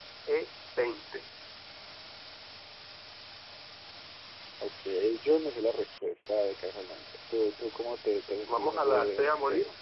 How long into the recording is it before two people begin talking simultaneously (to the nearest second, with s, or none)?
8 s